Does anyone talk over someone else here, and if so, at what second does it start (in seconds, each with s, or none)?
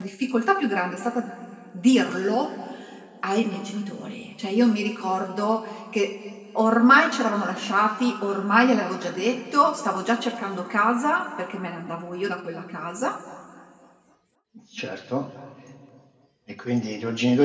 none